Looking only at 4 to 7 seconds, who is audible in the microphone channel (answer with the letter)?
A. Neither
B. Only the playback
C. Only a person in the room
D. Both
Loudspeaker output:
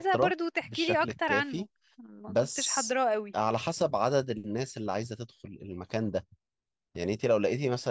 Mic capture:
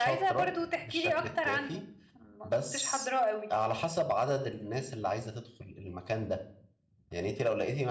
B